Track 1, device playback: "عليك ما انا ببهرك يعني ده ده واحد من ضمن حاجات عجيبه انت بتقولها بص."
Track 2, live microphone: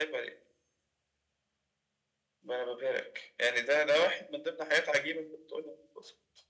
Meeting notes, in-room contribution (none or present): none